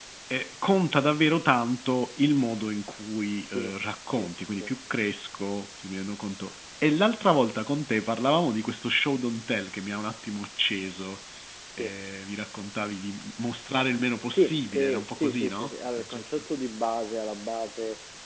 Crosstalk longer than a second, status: present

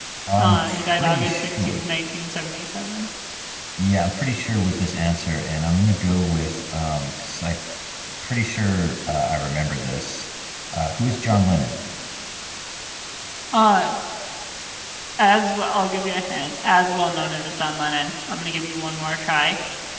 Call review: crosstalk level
present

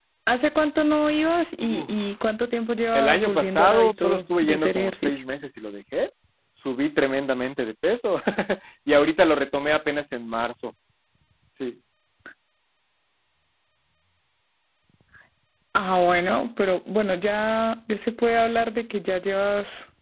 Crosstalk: present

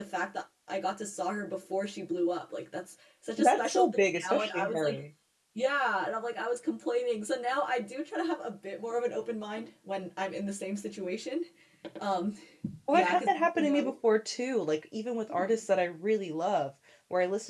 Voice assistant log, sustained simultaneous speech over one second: present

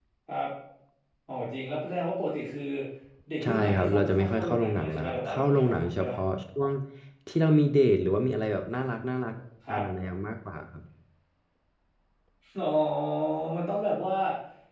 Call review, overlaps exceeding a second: present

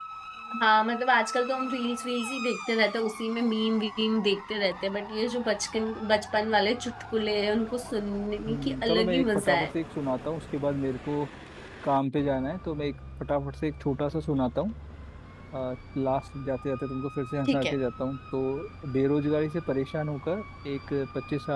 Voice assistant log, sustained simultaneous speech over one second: present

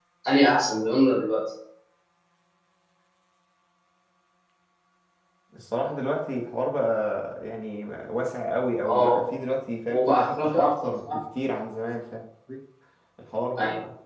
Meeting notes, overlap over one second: present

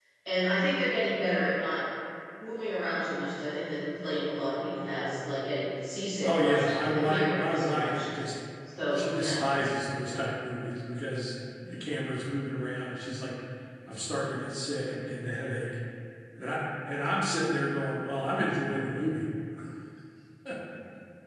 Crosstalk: present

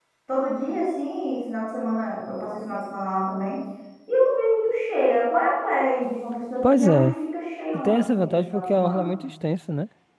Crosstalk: present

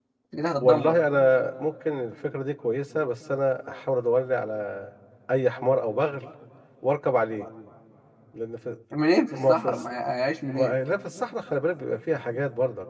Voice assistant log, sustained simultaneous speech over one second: none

